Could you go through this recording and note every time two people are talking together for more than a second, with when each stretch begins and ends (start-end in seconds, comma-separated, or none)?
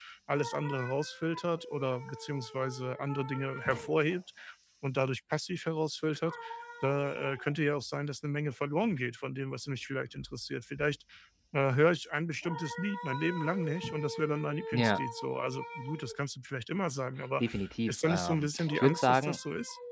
17.9-19.4